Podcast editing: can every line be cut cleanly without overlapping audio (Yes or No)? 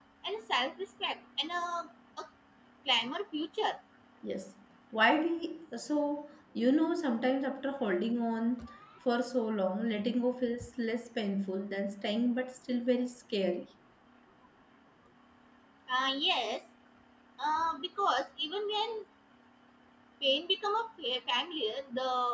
Yes